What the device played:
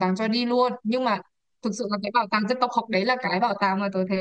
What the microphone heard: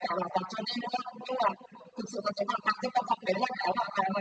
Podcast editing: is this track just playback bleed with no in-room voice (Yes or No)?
Yes